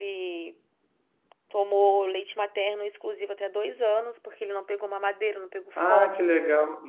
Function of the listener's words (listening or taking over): taking over